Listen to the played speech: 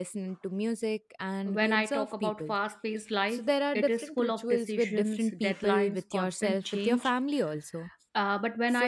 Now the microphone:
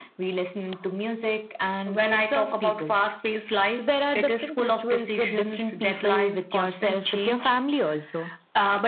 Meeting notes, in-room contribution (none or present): none